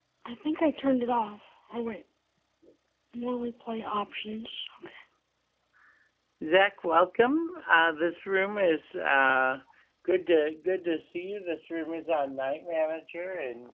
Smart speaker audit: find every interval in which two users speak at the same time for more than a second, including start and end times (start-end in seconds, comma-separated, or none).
none